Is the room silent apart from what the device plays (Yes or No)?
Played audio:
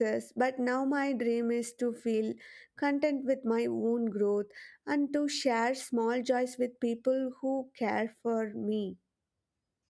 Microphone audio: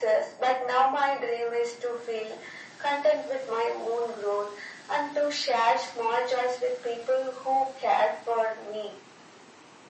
Yes